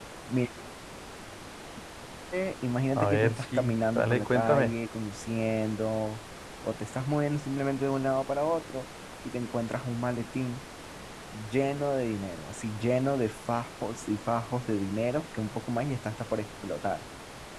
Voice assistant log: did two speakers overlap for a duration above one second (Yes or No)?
Yes